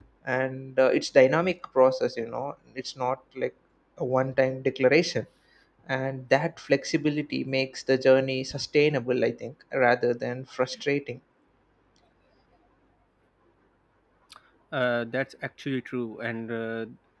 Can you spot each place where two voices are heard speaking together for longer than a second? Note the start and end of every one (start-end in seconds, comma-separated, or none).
none